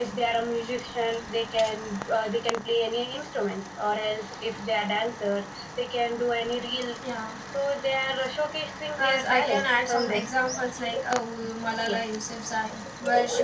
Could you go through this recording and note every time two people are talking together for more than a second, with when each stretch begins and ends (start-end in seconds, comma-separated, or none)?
9.0-10.2